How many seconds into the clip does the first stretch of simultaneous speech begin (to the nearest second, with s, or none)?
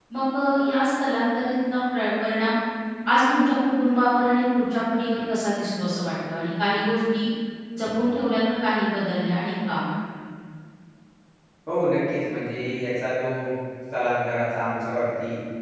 none